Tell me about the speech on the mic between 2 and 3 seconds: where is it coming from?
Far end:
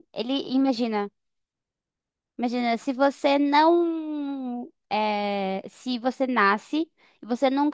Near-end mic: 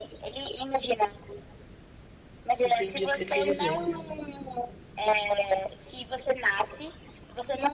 both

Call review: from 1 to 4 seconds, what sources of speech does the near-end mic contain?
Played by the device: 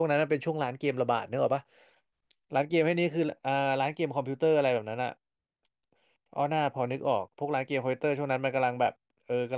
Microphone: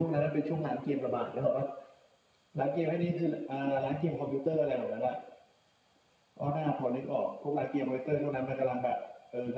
echo only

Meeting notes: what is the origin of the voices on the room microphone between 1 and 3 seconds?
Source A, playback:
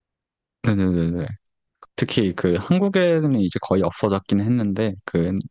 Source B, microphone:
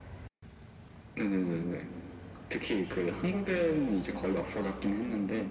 echo only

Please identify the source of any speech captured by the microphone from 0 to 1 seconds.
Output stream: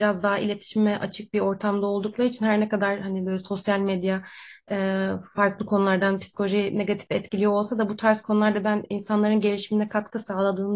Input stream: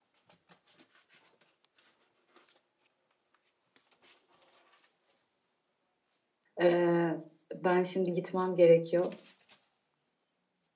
neither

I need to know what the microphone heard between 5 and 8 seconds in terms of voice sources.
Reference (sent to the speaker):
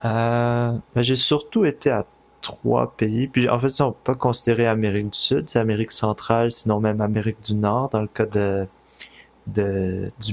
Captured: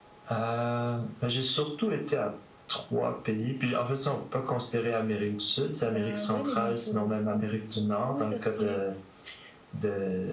both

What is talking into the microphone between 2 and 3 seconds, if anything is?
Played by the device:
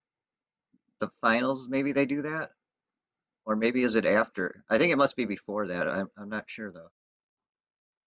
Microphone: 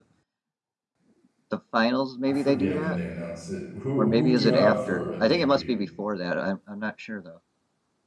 both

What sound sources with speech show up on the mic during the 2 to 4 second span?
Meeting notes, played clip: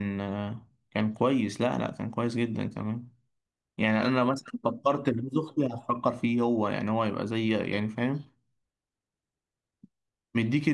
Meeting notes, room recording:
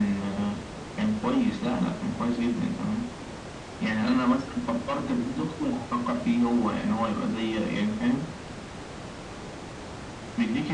echo only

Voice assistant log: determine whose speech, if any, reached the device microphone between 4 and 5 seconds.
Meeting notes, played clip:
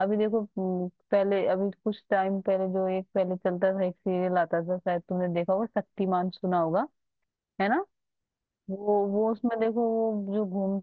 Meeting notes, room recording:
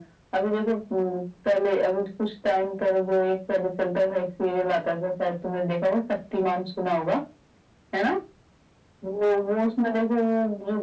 echo only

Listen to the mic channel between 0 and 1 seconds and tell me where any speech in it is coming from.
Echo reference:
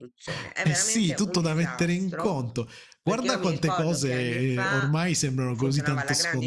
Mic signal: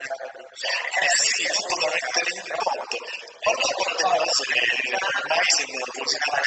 echo only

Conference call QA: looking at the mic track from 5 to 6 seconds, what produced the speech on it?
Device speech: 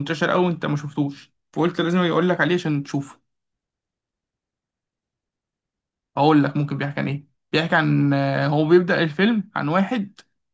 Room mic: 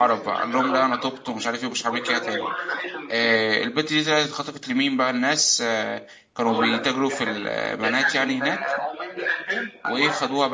user only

